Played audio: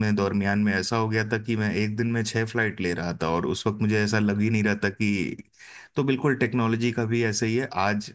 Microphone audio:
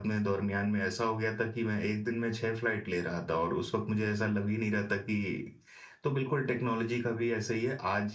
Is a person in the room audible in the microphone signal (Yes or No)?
No